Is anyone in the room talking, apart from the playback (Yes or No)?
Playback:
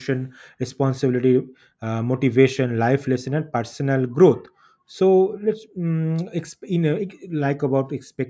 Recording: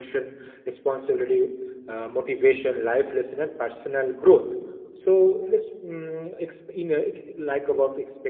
No